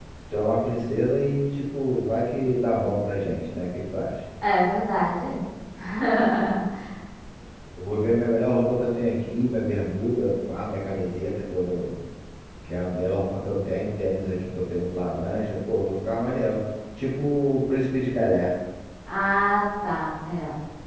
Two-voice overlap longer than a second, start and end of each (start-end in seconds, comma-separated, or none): none